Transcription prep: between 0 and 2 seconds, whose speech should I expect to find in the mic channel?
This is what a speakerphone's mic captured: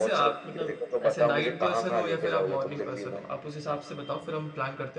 both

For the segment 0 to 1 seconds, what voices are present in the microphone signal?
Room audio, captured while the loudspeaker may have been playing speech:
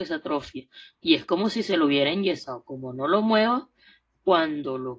user only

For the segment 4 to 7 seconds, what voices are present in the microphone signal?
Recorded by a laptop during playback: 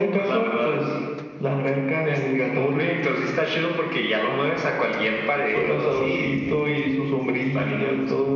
echo only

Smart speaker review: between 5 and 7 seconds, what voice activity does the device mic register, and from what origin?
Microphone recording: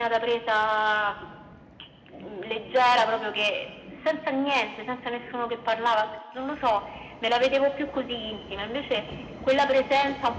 echo only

